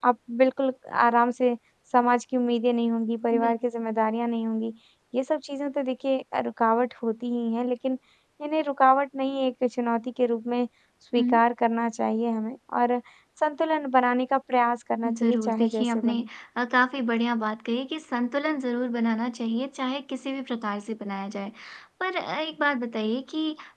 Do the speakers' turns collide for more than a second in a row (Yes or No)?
Yes